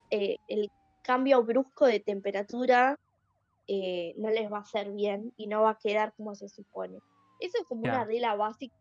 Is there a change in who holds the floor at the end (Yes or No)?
No